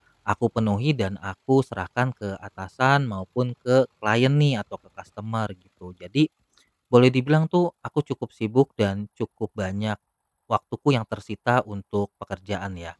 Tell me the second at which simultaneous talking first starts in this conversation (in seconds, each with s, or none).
none